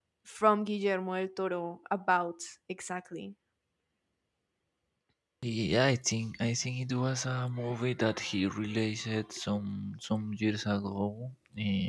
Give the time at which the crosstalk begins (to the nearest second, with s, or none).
none